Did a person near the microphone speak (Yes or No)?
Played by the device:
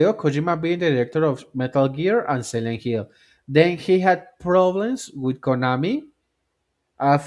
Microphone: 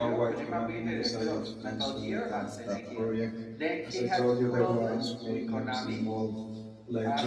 Yes